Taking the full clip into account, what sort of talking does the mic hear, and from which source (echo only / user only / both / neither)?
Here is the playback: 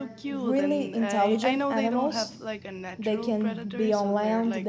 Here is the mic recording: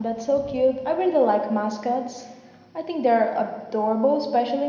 user only